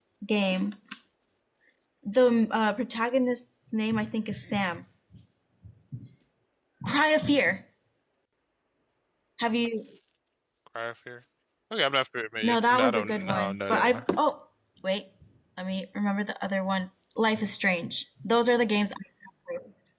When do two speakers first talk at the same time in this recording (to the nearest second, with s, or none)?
12 s